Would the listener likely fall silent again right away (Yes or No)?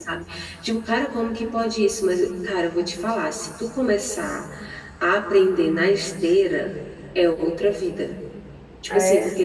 Yes